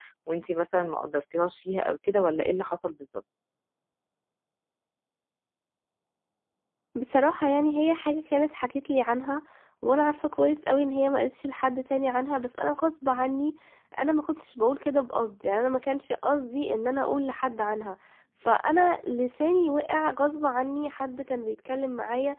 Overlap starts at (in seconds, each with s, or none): none